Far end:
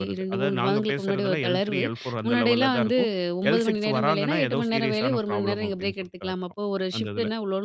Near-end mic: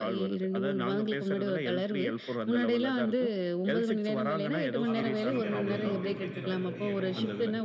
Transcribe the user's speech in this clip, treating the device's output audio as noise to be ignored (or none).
அதான் ஸ்வீடன் அந்த யூரோப்பியன் ரீஜியன்ல இருக்க ஏதோ ஒரு